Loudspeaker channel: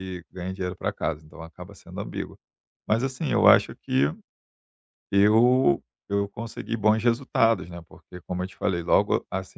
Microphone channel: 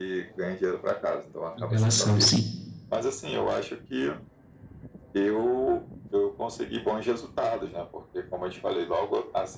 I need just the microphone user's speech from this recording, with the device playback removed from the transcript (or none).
em relação, sim,